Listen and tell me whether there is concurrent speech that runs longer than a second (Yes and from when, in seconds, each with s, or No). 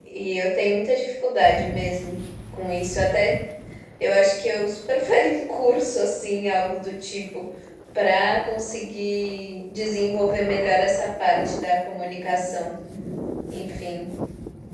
No